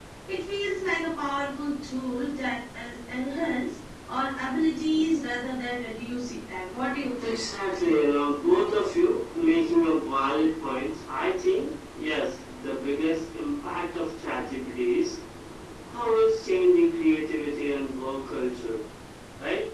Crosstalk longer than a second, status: none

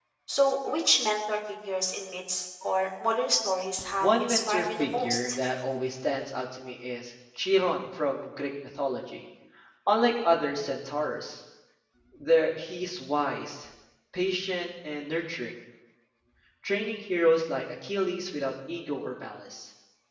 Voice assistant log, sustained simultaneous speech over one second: present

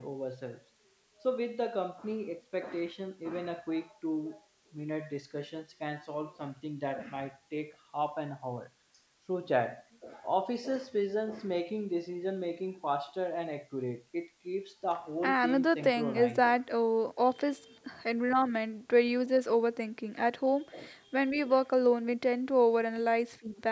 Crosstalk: present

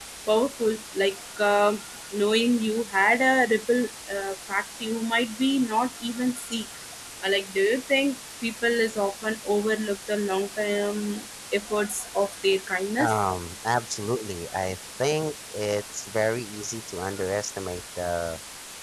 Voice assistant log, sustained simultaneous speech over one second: none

